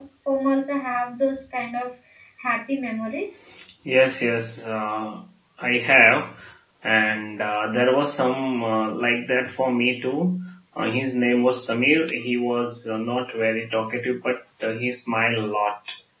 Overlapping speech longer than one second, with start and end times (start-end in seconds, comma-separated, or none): none